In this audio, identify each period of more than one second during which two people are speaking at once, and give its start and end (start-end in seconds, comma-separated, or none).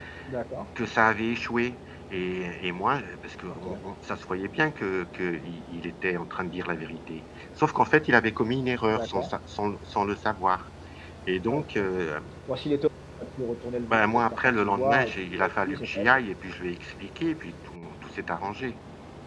13.9-16.2